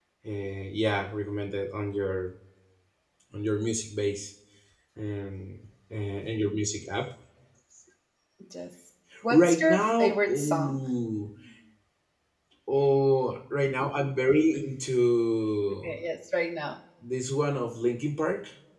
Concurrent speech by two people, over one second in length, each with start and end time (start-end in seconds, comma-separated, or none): 9.3-10.8